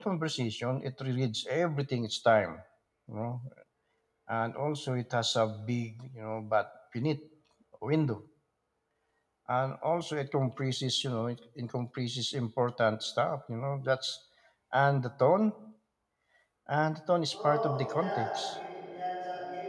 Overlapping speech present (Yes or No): Yes